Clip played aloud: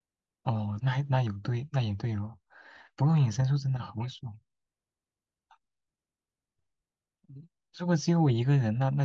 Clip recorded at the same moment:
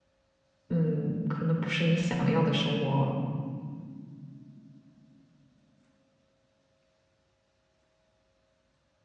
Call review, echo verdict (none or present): none